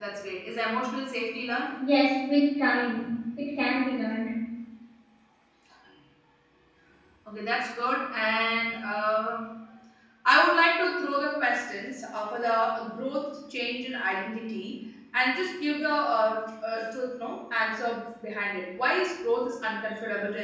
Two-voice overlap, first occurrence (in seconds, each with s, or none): none